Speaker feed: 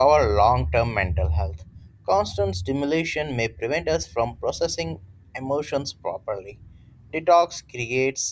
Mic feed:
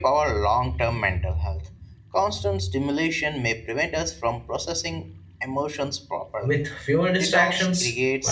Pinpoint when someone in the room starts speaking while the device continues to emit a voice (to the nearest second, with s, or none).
6 s